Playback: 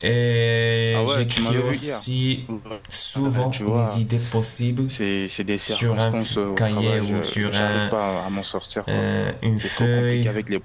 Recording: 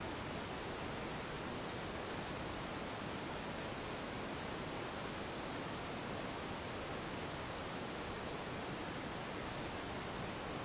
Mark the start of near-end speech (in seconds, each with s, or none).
none